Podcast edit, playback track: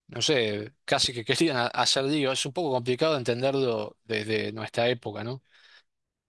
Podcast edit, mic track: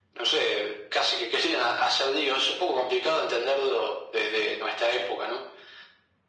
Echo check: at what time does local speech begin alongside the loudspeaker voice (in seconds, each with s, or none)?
none